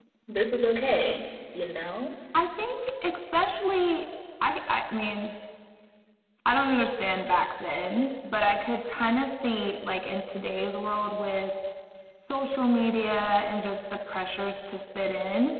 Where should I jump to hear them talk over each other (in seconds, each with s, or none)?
none